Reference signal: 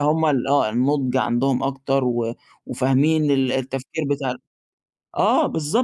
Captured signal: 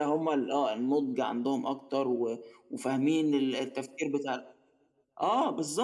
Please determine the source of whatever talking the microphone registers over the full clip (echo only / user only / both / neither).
echo only